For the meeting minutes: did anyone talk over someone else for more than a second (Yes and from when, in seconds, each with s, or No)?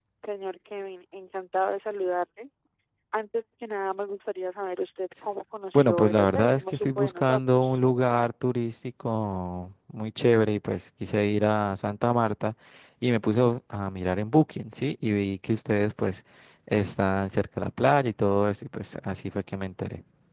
Yes, from 5.7 s